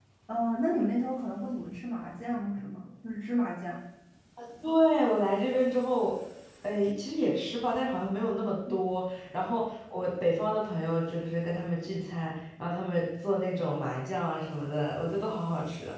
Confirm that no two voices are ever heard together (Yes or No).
Yes